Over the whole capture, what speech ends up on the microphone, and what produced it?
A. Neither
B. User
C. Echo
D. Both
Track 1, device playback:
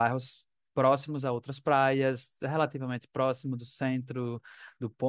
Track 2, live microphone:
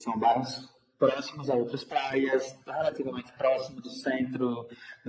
C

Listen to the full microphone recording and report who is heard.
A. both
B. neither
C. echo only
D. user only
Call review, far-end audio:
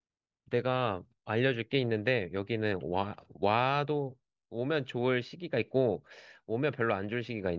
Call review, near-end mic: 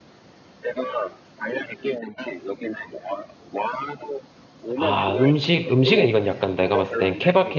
A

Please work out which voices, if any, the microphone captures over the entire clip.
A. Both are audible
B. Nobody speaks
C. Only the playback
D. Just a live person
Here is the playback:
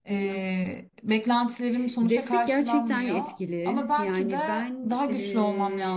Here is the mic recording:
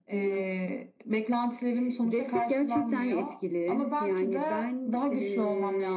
C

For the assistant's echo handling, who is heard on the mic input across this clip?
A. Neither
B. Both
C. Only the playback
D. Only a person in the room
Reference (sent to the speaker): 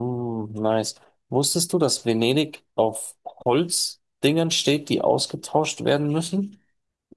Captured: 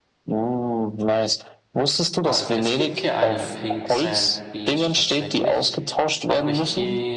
B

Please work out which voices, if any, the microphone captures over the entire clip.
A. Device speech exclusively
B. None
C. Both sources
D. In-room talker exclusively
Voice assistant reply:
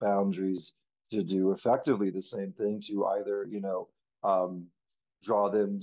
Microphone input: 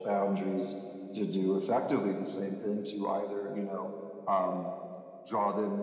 A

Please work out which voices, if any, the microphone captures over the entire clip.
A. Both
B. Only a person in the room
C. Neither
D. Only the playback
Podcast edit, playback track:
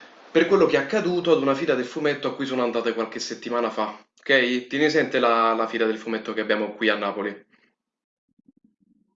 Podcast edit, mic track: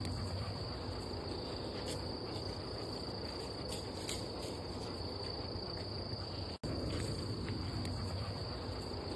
C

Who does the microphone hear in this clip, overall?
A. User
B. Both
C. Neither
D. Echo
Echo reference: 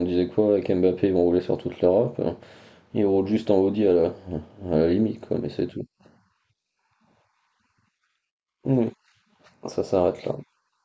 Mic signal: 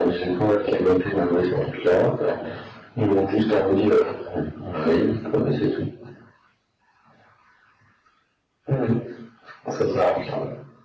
D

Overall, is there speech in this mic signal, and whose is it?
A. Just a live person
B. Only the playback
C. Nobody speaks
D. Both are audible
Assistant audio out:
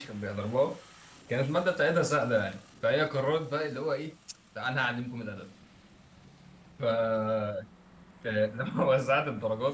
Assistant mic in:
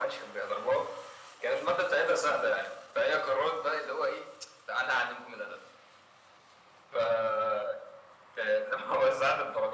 B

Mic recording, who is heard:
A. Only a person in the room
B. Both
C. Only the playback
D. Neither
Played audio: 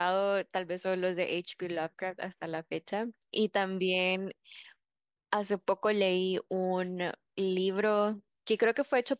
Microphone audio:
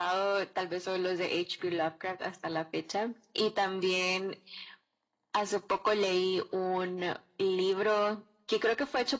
C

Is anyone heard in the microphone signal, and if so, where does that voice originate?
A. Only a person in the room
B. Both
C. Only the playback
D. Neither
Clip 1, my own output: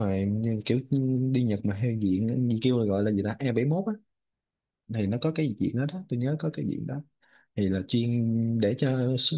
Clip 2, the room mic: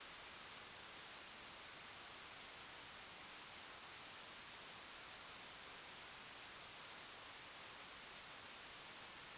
D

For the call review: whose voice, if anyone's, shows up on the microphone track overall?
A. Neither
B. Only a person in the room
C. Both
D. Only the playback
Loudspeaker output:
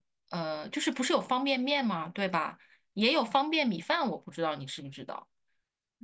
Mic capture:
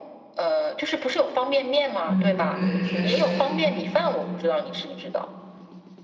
C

